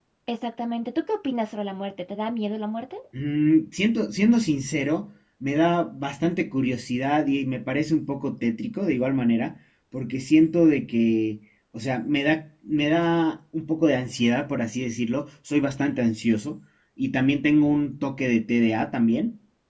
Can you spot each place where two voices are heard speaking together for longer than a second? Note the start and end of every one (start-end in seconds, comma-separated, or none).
none